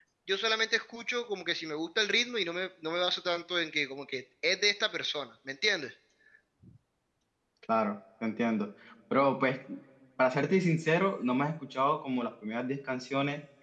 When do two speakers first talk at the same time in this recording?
none

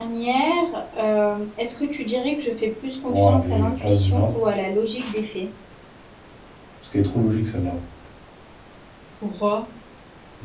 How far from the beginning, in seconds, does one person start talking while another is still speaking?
3.1 s

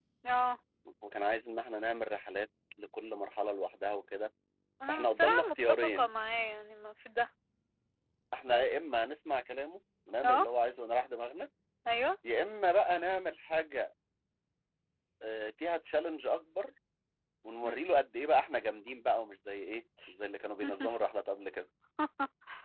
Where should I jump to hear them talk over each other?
4.9 s

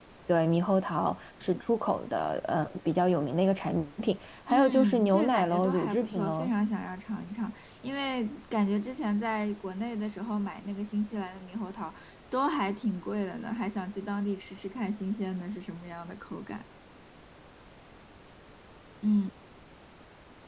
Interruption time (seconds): 4.5 s

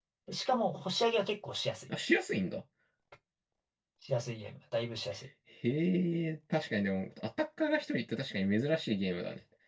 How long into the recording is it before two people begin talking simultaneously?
none

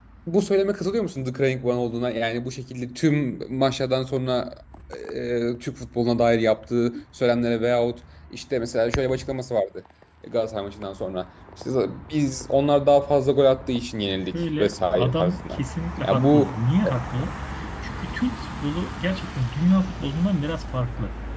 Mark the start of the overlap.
14.3 s

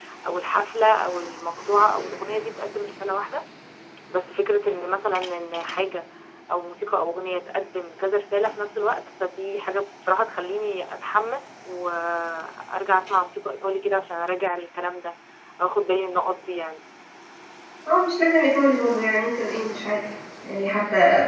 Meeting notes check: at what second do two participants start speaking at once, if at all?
none

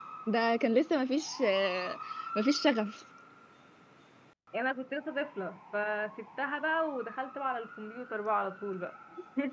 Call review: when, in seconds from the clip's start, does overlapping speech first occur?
none

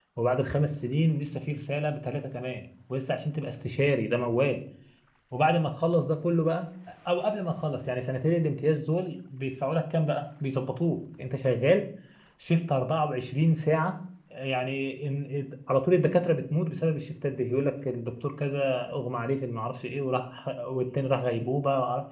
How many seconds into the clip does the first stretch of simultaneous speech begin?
none

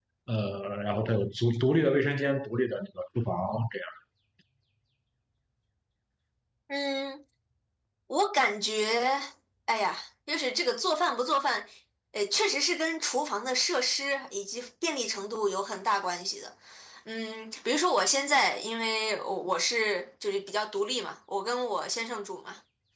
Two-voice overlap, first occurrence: none

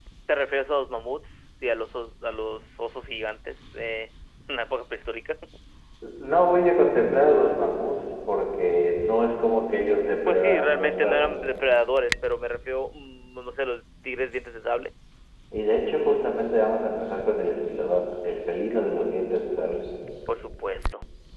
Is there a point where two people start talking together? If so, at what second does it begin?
10.3 s

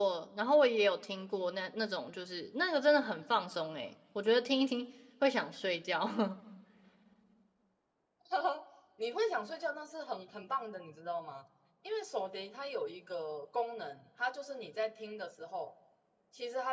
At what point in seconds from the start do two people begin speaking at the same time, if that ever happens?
none

